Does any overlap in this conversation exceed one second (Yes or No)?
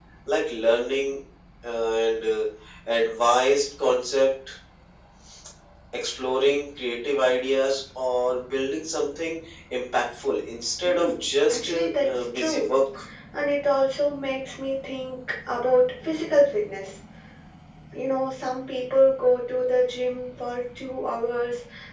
Yes